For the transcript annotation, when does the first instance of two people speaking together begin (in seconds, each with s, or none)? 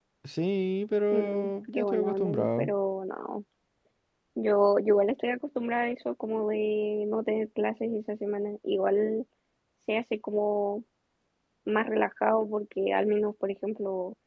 1.1 s